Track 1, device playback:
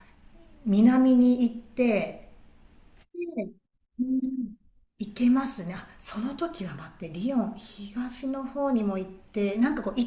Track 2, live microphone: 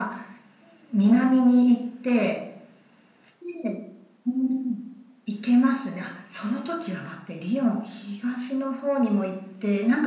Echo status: present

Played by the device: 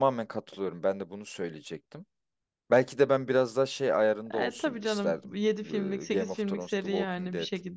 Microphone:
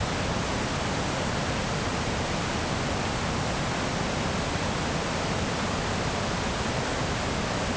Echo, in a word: none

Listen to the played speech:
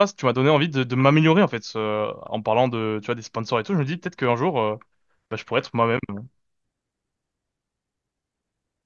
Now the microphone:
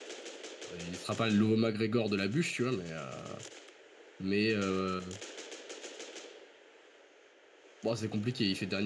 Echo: none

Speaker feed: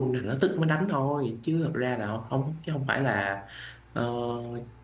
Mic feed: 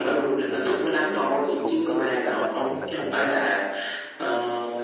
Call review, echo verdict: present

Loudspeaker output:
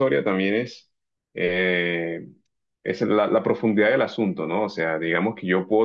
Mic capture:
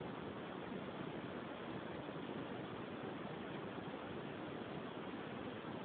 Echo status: none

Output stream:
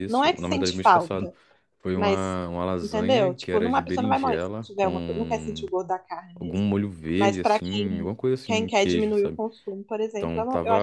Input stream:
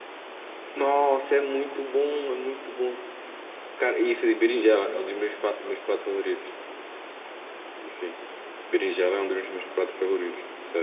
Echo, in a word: none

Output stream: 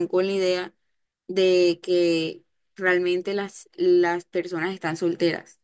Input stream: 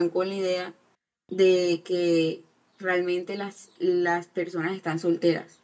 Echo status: present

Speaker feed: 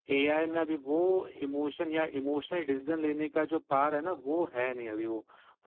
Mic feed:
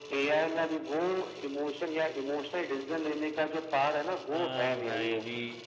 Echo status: present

